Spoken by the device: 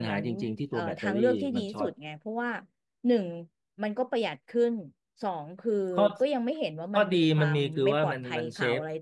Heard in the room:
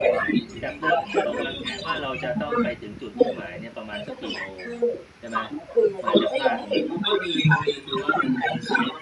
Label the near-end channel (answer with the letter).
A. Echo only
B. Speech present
B